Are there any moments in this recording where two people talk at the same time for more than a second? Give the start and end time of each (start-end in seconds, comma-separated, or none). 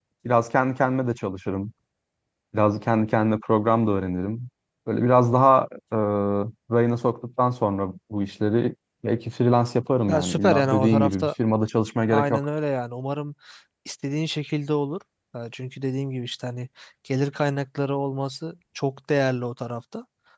10.1-11.3